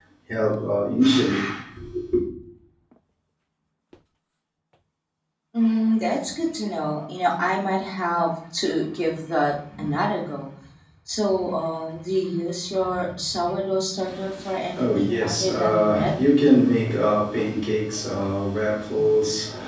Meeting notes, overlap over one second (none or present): present